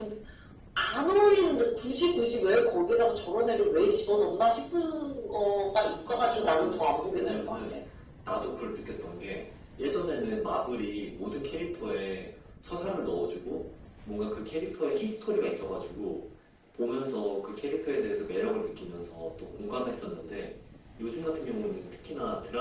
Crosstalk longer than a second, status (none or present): present